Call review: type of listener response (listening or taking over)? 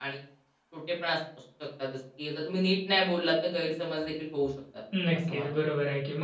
taking over